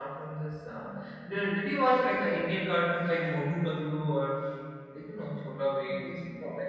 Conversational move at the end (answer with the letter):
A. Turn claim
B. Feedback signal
A